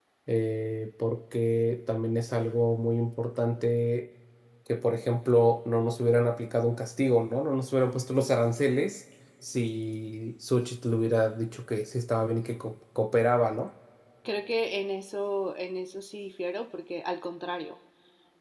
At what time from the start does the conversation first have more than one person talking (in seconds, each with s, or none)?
none